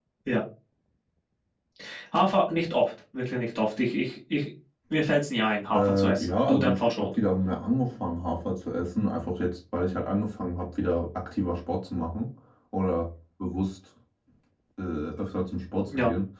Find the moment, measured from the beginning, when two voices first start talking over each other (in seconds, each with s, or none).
5.7 s